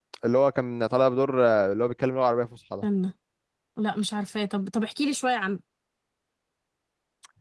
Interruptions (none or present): none